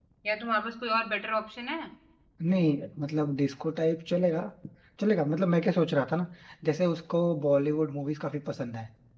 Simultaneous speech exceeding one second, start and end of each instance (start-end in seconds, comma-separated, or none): none